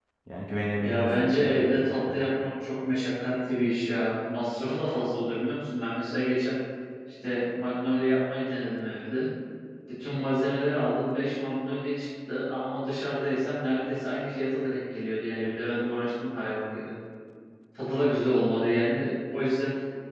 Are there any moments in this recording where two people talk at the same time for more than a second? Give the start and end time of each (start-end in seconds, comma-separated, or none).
0.8-2.3